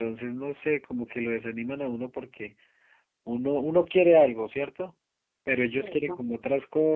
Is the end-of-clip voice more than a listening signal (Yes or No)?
No